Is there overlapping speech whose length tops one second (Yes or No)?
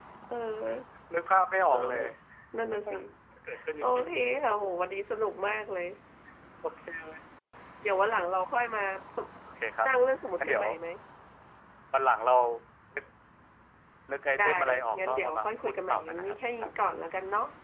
Yes